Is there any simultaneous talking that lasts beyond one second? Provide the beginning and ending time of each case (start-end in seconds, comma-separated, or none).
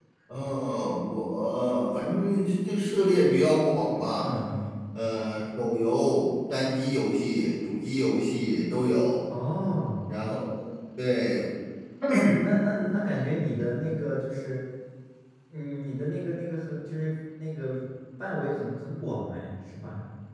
none